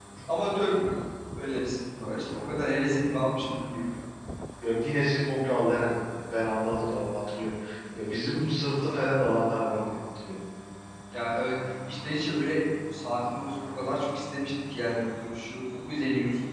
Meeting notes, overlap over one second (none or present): none